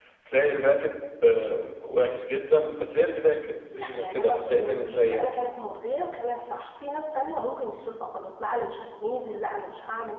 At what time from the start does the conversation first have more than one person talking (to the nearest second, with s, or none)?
4 s